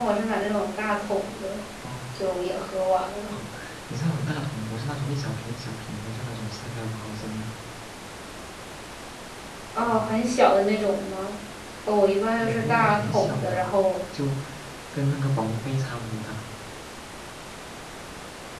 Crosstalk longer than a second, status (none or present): present